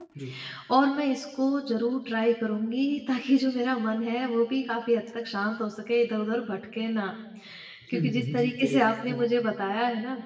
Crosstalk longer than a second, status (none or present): present